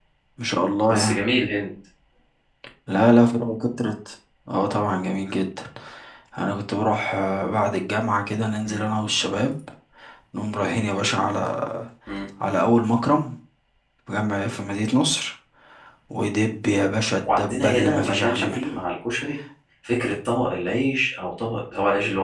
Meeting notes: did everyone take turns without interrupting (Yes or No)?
No